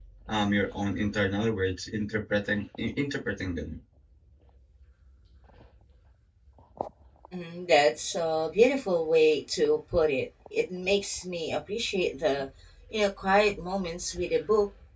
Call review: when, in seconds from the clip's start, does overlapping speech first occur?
none

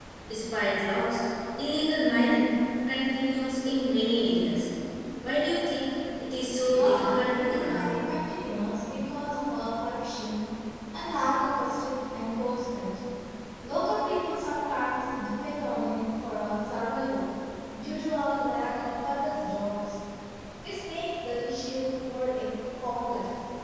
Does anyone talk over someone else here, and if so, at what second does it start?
7 s

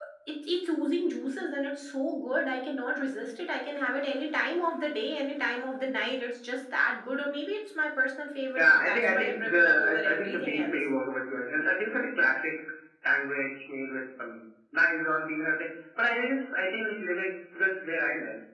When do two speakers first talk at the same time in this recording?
9 s

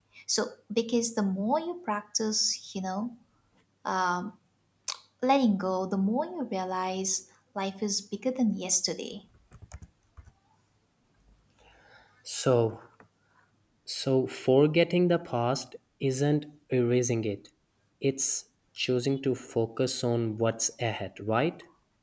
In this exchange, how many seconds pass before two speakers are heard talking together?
none

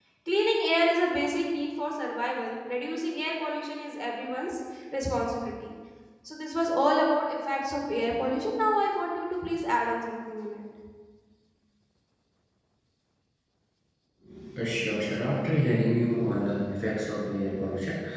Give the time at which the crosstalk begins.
none

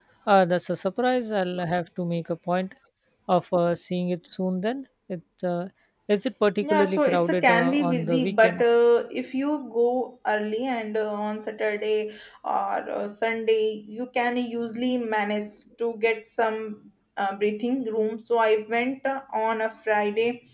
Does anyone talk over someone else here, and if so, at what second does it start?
7 s

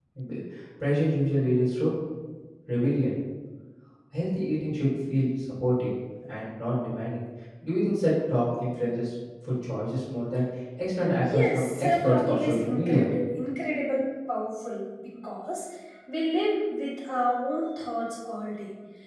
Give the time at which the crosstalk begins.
11 s

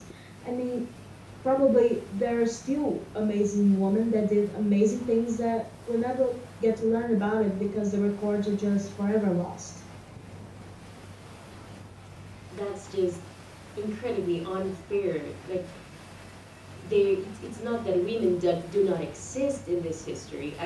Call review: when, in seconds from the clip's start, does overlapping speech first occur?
none

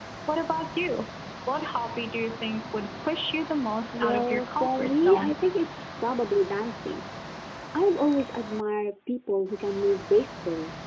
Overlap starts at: 4 s

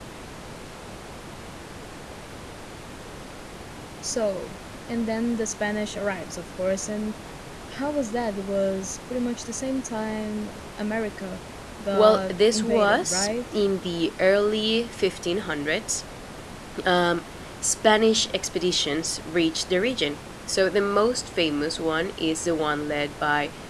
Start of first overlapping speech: 12 s

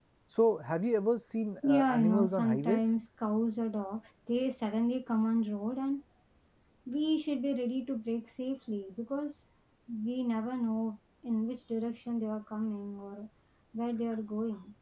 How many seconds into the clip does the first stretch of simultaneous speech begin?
2 s

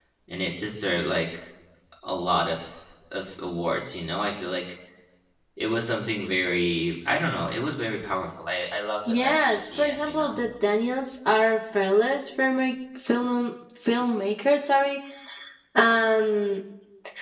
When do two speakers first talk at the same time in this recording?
9 s

